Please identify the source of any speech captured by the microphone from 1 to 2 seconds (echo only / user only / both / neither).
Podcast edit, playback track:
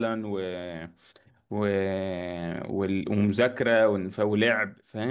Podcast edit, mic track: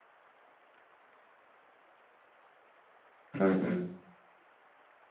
neither